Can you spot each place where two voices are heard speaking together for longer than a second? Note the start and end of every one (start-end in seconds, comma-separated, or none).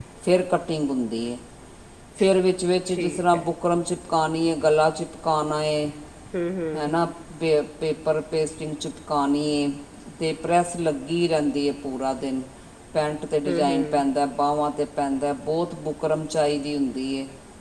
none